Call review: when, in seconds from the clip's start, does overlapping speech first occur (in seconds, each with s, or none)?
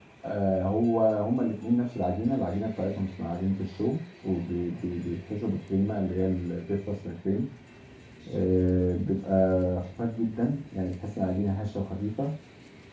none